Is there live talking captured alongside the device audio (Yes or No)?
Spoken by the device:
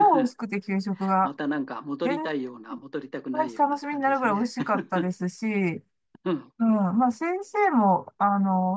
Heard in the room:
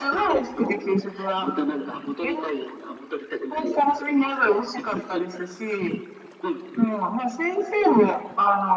No